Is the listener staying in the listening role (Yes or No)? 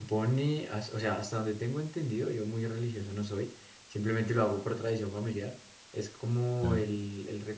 Yes